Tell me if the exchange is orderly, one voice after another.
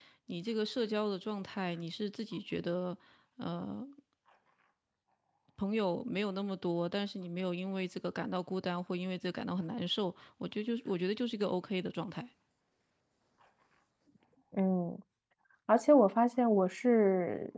Yes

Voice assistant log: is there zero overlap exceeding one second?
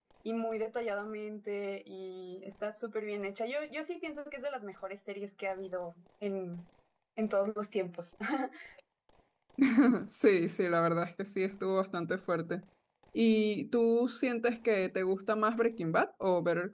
Yes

